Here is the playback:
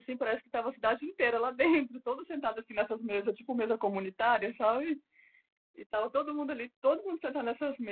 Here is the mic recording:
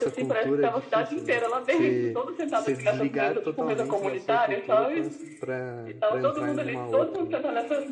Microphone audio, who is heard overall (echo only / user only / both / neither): both